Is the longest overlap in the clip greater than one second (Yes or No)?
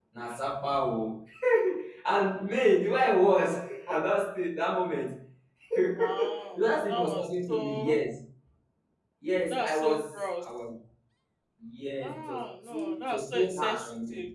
Yes